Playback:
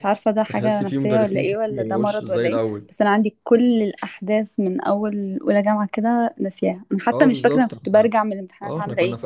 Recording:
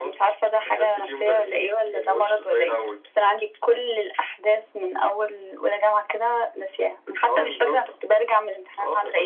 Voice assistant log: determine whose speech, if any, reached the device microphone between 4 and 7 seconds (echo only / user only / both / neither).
echo only